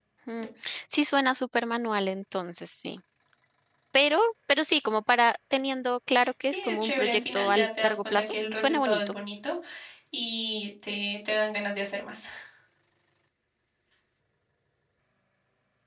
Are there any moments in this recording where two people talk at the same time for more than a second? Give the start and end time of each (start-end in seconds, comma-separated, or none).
6.5-9.1